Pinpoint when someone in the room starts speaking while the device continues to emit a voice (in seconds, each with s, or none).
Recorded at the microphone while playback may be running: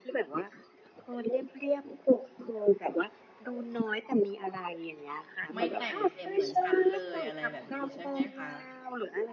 5.5 s